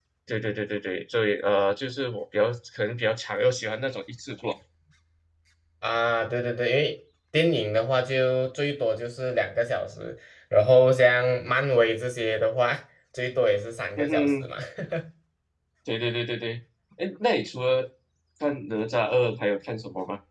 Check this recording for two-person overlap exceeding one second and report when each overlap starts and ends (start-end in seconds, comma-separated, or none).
none